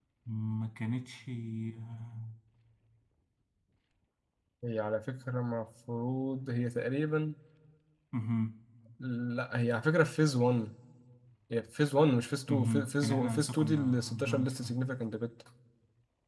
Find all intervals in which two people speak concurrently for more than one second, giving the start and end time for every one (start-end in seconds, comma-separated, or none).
12.5-14.7